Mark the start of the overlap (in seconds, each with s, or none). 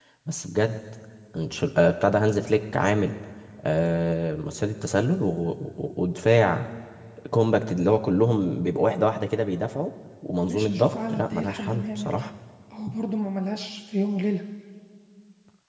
10.5 s